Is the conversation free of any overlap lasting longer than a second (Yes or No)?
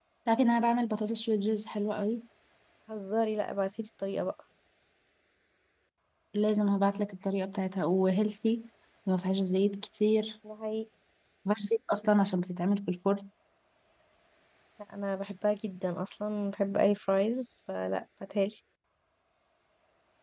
Yes